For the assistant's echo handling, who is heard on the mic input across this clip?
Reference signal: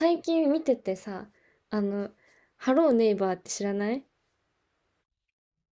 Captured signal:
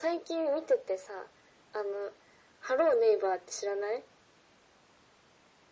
echo only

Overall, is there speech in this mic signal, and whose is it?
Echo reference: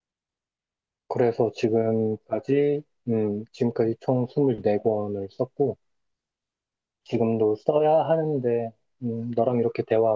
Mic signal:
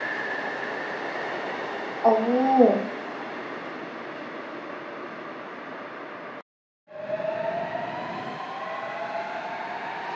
user only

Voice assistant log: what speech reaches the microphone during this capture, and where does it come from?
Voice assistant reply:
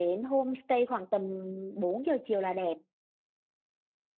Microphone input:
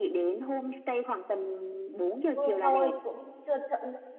both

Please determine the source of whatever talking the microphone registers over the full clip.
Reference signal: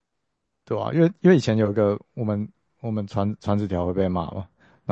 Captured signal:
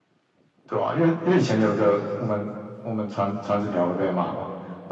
echo only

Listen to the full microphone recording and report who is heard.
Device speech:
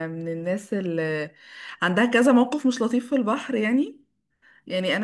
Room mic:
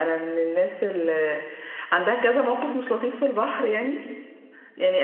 echo only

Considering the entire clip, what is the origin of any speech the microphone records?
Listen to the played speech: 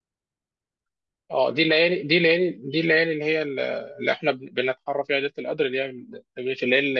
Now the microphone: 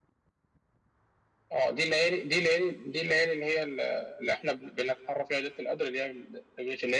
echo only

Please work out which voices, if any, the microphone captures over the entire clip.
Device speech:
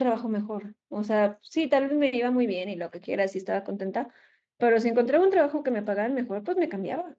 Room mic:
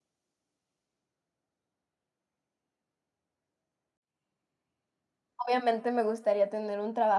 user only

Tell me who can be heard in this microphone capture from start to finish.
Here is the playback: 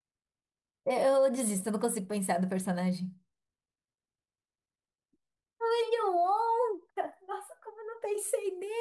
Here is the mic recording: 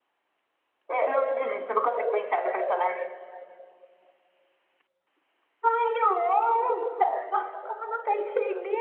echo only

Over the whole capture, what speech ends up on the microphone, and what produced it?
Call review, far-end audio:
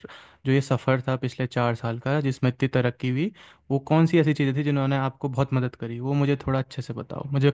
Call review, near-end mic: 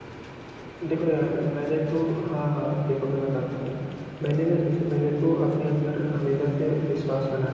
user only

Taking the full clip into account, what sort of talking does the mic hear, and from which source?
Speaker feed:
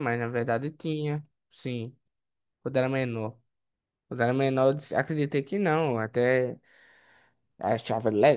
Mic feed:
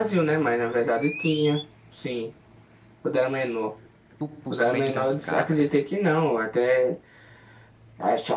both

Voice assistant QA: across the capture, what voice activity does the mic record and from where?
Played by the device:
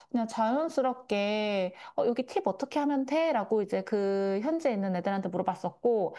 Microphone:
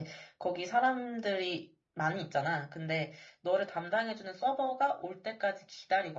user only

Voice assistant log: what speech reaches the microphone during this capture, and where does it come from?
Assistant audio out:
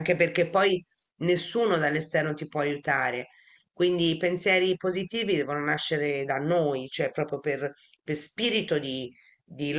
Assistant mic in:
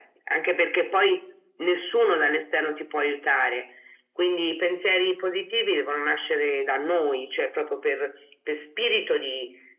echo only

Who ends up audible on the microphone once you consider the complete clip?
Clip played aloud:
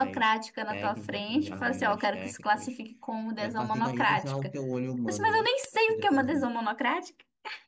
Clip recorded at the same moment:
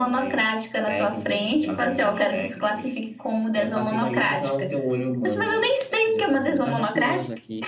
both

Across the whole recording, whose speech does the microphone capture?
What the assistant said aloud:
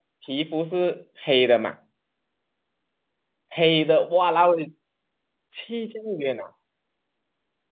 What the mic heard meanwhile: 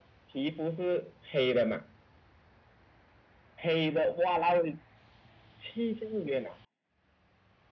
echo only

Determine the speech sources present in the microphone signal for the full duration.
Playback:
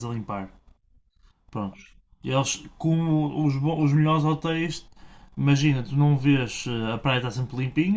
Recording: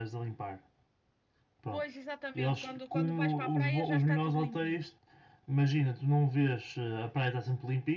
both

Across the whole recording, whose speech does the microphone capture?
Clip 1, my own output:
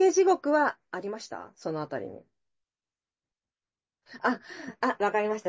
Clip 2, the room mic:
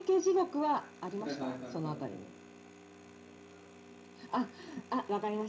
both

